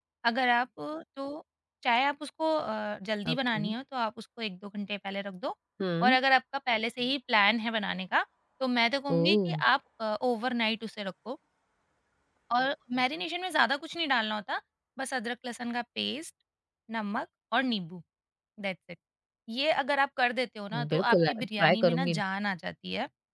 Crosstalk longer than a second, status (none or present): present